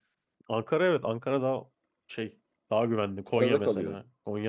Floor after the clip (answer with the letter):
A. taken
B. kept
B